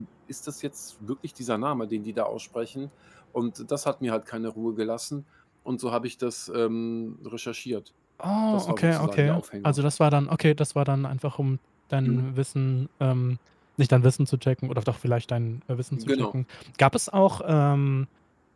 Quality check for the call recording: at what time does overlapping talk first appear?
8.5 s

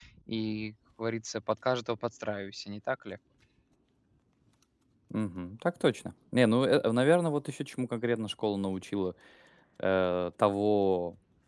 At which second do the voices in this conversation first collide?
none

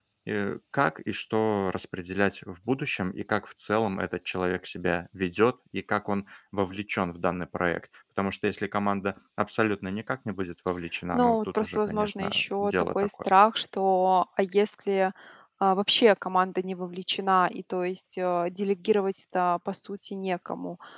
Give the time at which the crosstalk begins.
11.1 s

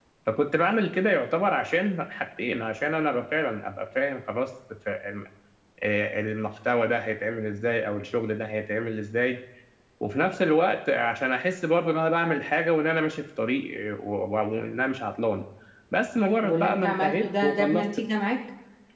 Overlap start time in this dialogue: 16.4 s

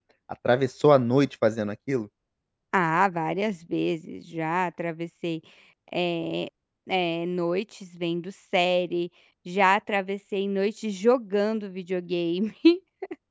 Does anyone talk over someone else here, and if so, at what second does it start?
none

